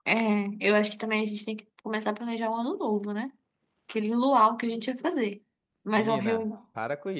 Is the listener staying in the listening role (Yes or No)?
No